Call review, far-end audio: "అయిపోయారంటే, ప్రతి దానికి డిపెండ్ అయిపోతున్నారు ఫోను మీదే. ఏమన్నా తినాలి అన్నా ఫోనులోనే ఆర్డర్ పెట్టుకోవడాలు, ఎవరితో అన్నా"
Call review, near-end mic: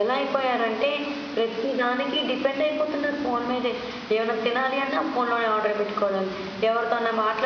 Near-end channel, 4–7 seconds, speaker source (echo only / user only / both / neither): echo only